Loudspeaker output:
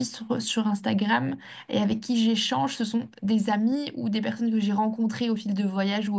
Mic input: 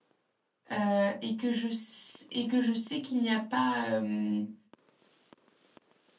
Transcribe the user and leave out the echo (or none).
euh, et que je, s- et que je sais qu'il n'y a pas... euh, enfin,